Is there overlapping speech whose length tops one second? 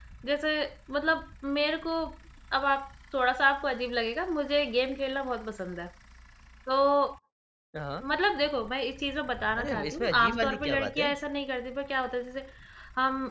Yes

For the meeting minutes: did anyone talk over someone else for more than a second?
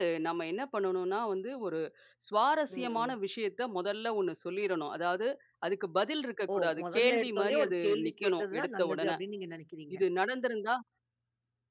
Yes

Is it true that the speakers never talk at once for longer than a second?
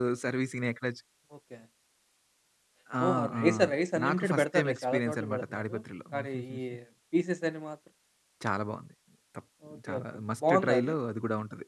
No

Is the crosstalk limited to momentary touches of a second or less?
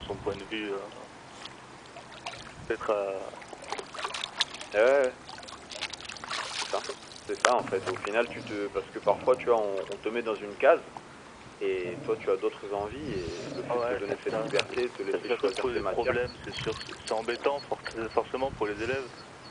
No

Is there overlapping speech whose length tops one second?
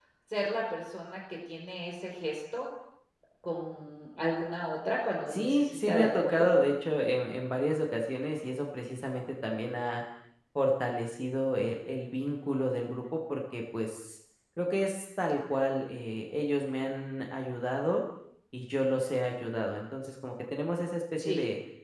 Yes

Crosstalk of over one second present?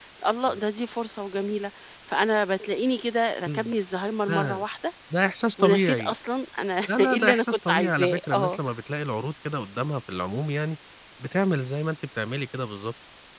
Yes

